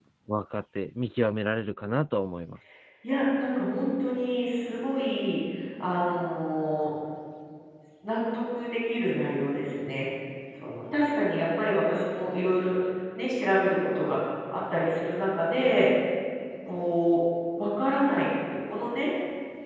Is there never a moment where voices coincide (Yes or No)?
Yes